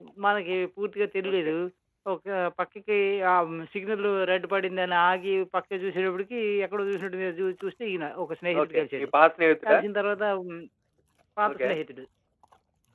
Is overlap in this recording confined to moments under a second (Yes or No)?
Yes